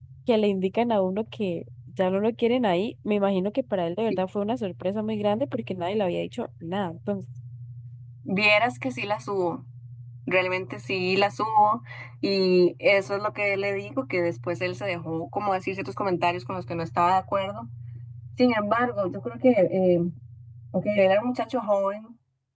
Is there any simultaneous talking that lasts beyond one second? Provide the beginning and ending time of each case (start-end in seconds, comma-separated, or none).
none